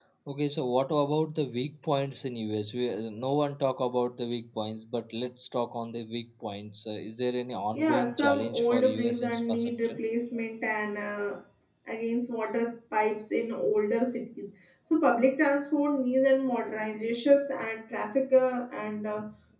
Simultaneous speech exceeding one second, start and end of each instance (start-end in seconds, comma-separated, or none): 7.7-10.0